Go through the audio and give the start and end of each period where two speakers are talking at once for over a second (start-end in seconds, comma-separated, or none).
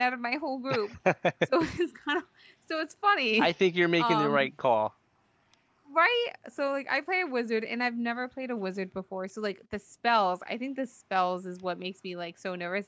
none